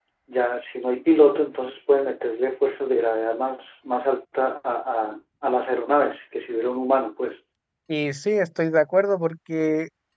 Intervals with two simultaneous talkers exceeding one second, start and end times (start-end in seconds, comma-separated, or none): none